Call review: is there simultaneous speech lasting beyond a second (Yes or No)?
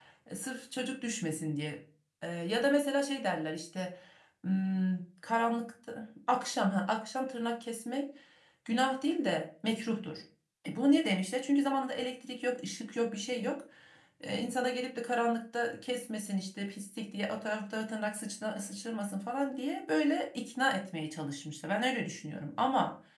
No